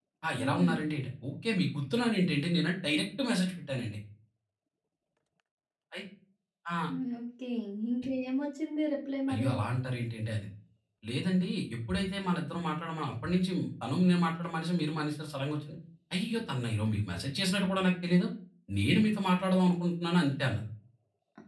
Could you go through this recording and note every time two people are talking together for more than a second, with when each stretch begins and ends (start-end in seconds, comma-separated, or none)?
none